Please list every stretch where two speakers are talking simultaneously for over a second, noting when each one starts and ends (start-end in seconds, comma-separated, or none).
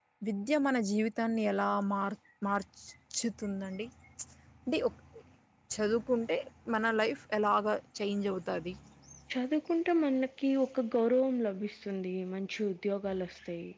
none